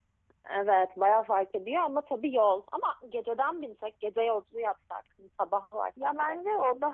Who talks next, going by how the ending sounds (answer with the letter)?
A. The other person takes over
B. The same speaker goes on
A